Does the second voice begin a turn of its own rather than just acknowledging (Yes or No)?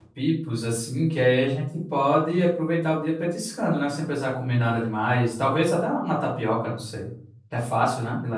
Yes